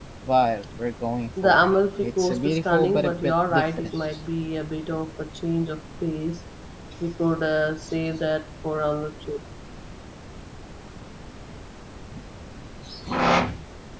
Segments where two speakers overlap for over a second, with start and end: 1.4-4.0

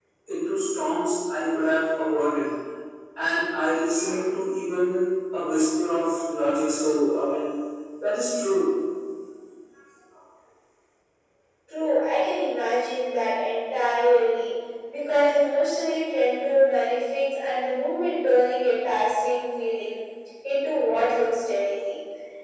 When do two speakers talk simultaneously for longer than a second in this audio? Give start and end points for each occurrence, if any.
none

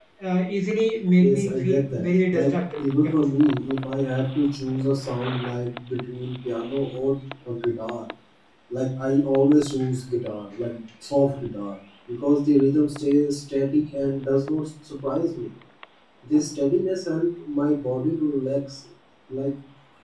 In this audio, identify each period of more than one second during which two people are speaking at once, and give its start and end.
1.2-3.1

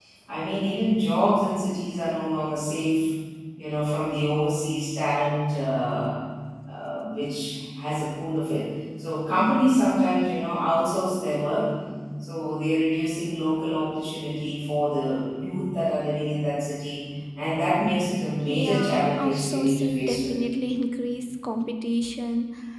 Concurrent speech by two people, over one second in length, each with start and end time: 18.5-20.3

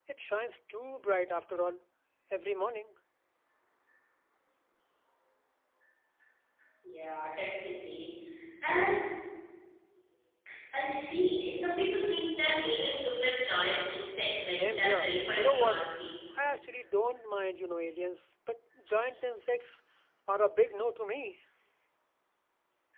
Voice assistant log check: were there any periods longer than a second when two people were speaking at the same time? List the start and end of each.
14.6-15.8

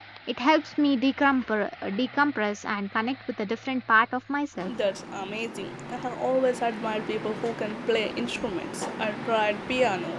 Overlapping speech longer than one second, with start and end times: none

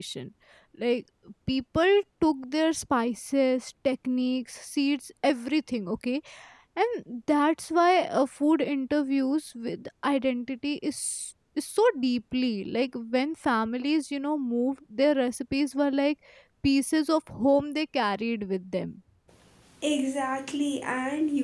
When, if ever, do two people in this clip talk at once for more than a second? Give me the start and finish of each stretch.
none

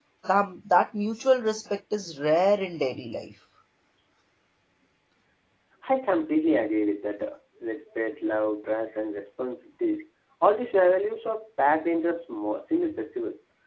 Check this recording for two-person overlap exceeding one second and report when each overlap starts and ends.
none

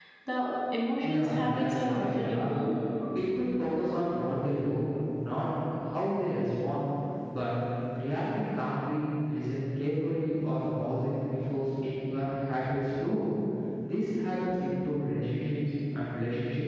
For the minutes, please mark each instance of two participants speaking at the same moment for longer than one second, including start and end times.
1.0-2.6

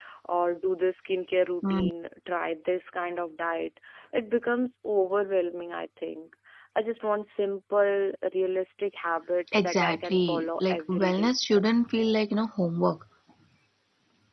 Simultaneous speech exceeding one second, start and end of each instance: 9.5-11.3

